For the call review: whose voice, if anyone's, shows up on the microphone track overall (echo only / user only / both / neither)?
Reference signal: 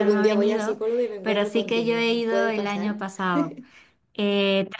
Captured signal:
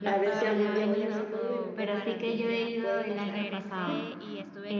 both